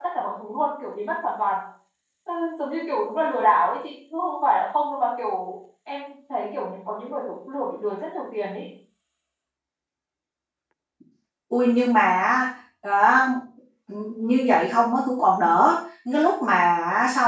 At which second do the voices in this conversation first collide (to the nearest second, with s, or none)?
none